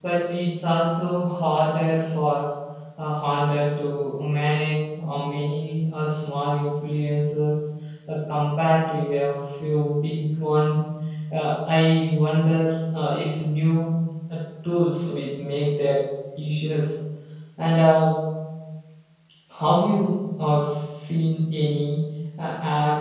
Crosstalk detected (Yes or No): No